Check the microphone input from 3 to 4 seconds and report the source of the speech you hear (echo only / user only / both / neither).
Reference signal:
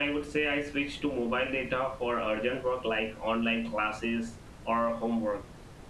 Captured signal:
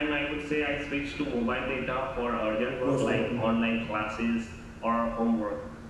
both